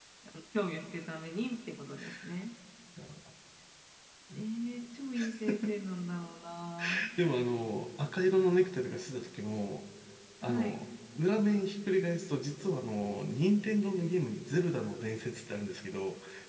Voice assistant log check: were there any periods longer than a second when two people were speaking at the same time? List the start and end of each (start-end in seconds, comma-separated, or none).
none